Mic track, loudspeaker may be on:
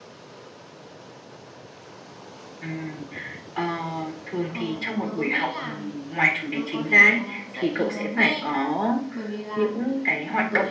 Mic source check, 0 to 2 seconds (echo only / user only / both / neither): neither